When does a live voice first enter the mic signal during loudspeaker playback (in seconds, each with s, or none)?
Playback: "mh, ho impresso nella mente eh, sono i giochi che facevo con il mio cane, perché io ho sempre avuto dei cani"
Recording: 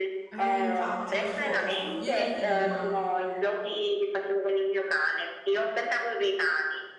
0.3 s